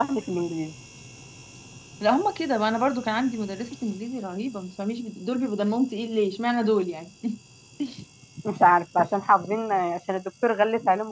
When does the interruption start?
none

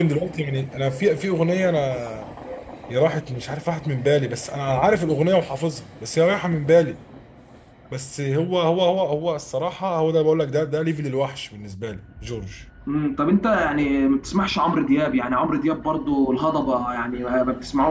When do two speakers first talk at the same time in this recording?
none

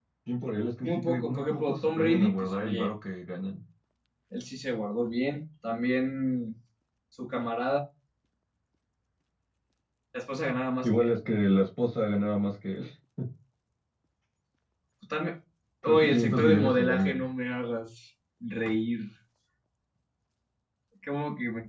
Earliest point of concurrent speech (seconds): 0.8 s

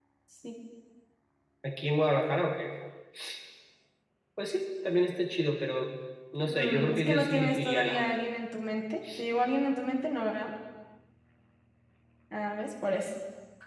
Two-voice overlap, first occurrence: 6.4 s

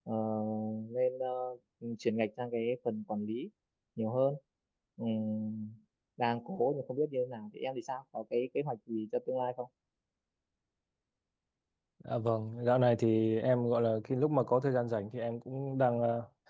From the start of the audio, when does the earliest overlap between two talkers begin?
none

